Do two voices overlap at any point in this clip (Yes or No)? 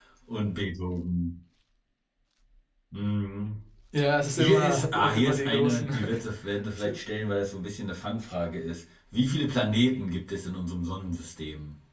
Yes